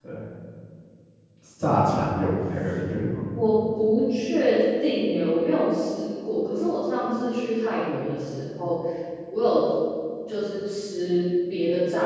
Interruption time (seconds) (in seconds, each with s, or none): none